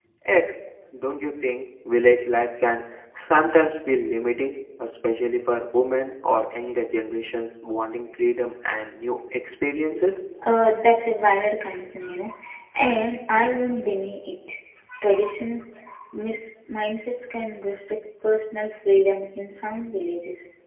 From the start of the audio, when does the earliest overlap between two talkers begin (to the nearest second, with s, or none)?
none